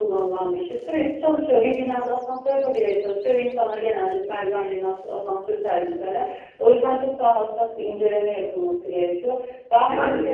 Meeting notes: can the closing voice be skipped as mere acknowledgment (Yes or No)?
Yes